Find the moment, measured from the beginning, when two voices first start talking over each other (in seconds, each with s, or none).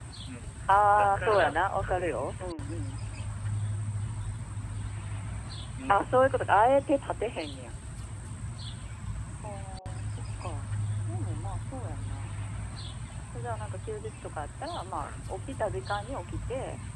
0.9 s